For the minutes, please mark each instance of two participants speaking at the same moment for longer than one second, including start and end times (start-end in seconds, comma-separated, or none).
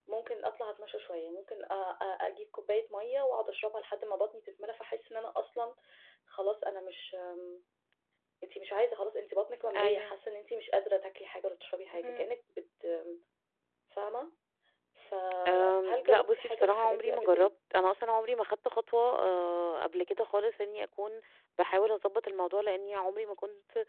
15.5-17.5